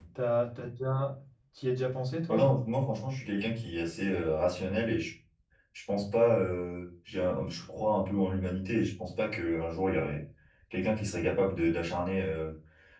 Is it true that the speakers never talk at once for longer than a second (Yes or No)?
Yes